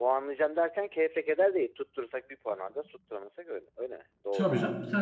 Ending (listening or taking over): taking over